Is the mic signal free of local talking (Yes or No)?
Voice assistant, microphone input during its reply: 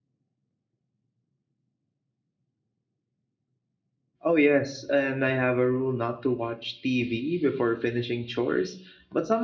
No